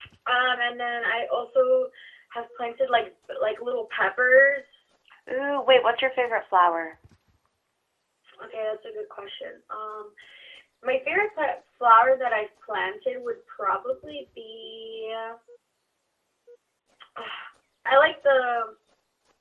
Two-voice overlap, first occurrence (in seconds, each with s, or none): none